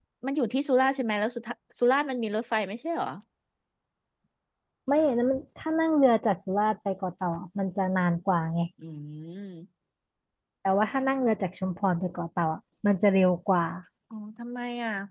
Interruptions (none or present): none